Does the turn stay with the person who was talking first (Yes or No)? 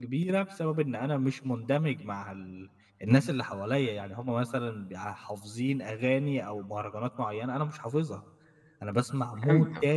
Yes